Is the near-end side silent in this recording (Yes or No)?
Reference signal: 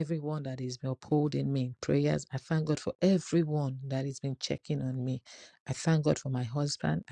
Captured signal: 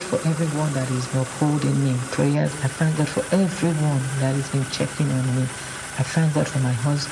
Yes